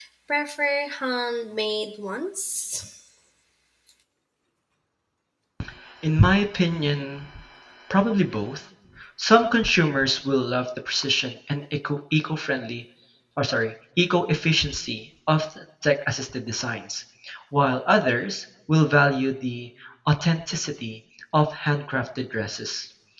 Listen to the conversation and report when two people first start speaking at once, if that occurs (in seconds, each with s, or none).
none